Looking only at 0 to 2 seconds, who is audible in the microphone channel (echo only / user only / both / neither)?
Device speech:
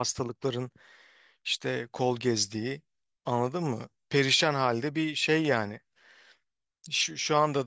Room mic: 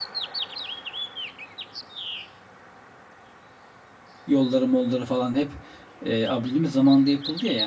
neither